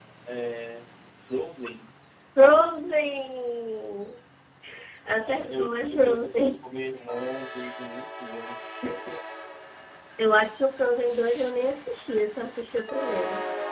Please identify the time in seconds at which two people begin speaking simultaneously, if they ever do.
5 s

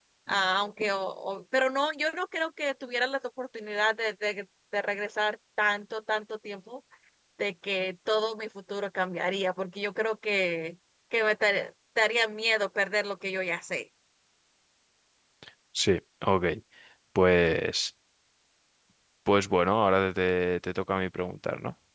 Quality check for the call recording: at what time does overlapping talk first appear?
none

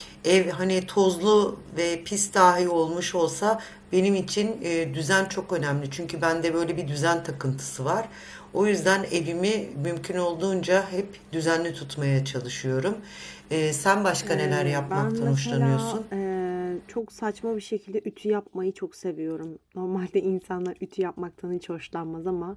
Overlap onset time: 14 s

